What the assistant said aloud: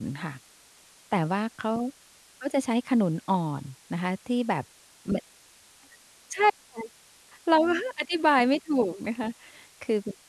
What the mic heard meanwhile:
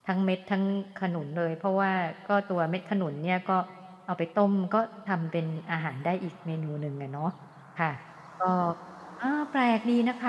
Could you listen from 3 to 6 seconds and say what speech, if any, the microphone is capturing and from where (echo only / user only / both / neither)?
user only